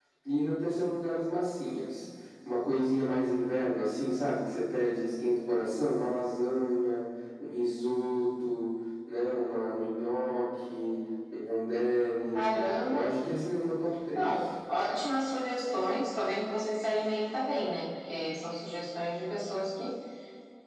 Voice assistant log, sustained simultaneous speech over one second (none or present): none